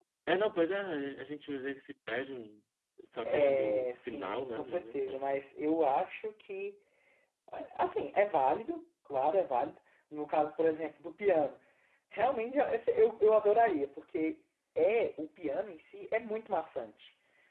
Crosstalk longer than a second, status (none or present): present